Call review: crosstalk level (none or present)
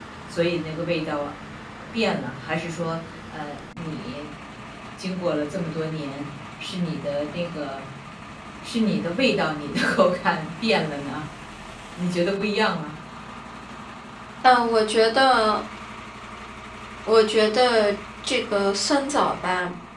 none